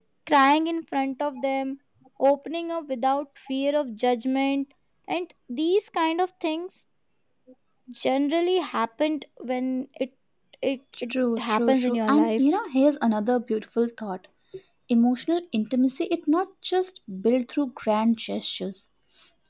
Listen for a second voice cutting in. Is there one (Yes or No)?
Yes